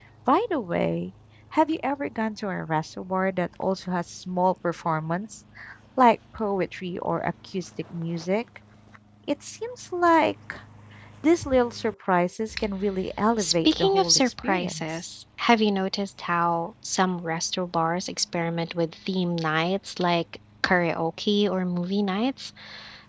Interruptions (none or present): present